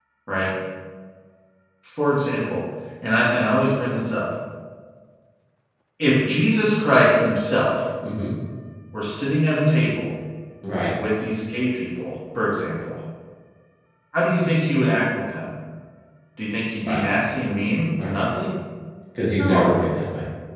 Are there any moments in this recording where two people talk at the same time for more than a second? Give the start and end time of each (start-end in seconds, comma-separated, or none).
none